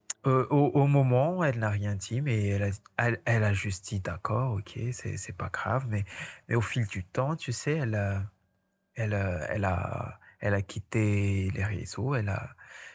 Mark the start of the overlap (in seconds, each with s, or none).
none